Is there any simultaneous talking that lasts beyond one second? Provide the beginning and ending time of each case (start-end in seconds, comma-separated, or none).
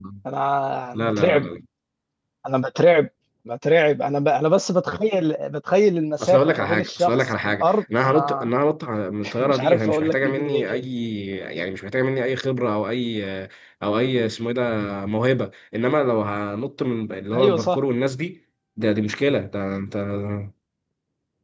6.2-8.5, 9.4-10.8